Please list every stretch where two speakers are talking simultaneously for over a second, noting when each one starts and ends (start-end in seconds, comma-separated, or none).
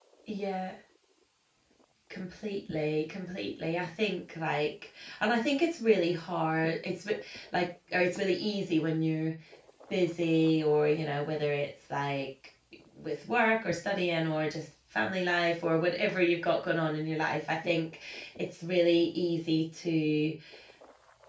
none